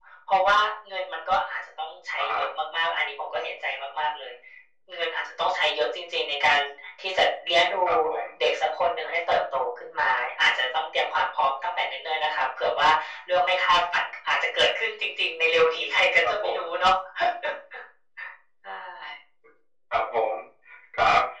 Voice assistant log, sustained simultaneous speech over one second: none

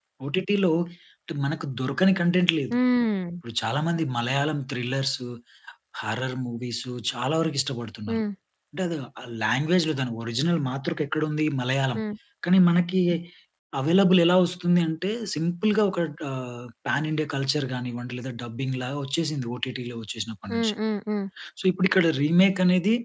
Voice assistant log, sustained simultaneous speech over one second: none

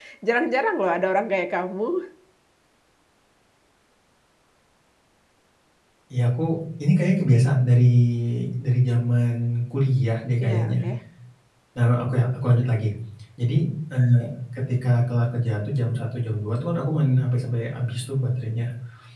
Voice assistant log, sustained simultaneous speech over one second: none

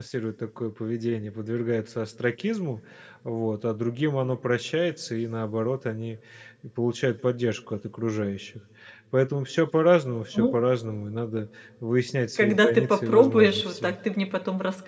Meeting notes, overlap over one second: present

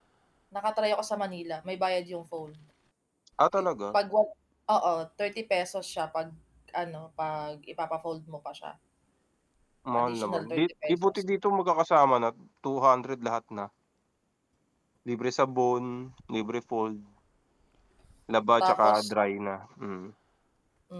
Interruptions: present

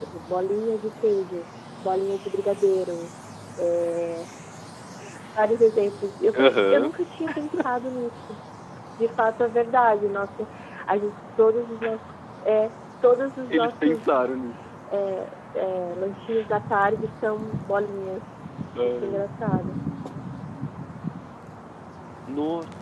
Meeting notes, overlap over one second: none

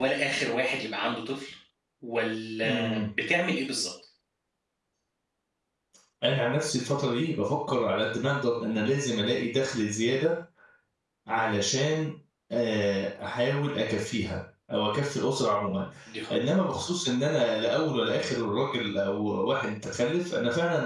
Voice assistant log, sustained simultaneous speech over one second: none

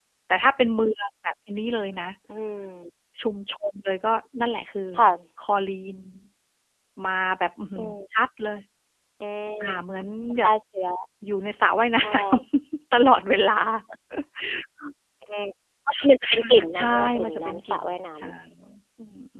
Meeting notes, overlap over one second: present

